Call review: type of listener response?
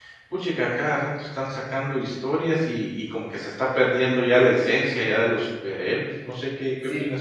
taking over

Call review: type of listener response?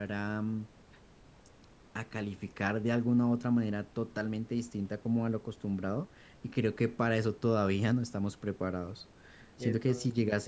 listening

